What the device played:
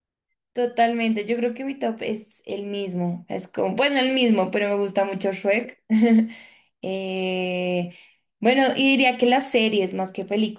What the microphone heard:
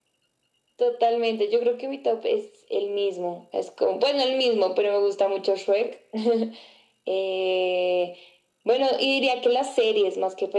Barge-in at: none

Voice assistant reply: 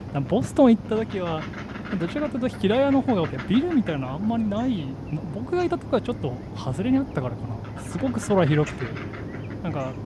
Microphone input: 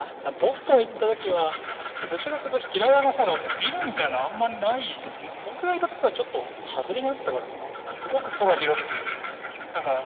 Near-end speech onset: none

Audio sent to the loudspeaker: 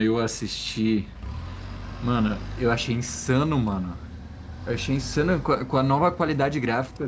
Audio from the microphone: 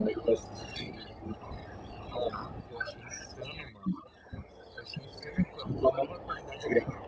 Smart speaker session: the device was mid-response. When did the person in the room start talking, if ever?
none

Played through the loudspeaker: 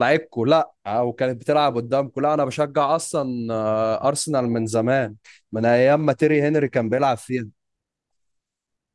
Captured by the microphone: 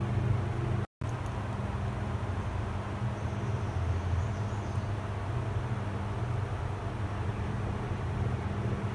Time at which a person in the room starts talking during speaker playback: none

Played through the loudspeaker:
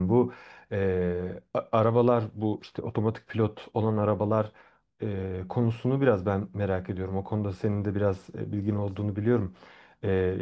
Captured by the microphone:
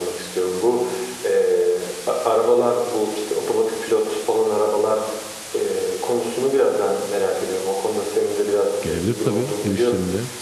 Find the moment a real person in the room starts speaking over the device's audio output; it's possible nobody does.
9 s

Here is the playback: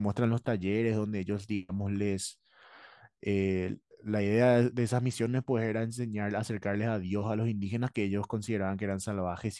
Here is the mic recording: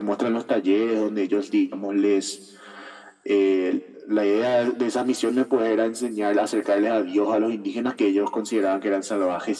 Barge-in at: none

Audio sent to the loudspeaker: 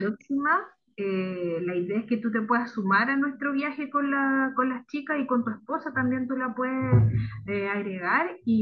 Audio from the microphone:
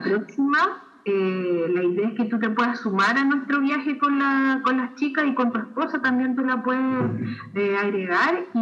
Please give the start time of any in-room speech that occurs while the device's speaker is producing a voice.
none

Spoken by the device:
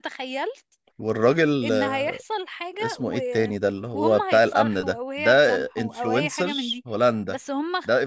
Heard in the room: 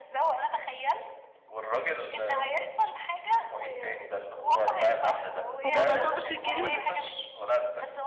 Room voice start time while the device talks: 6 s

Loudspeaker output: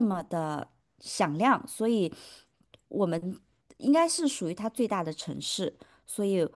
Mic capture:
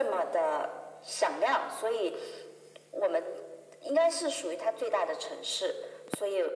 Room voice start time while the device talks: none

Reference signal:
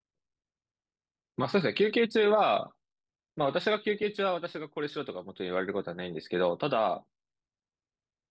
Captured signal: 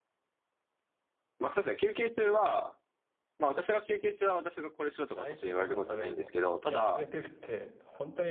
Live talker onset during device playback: 5 s

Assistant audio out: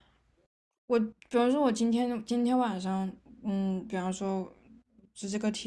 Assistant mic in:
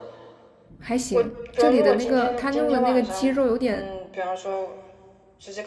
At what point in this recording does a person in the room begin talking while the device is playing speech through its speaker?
1 s

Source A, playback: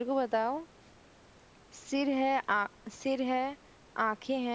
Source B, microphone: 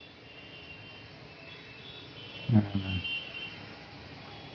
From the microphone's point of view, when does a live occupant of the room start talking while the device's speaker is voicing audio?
2 s

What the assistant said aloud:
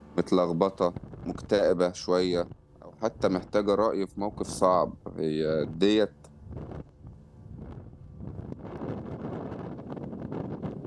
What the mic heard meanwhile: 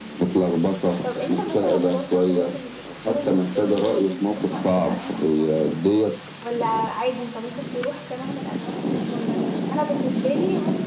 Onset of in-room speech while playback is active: 1 s

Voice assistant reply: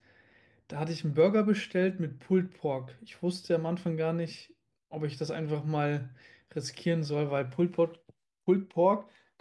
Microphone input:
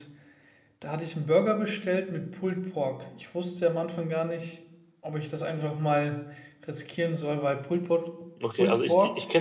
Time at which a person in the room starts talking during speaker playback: 8 s

